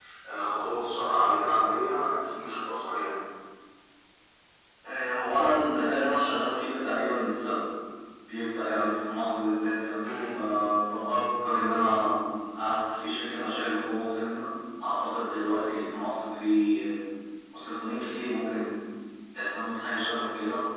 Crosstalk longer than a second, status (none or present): none